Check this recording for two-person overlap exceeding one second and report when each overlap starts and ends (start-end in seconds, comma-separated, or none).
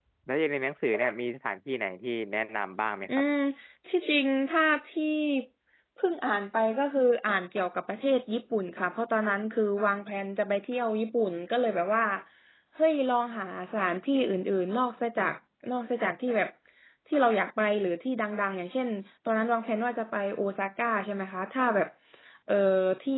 none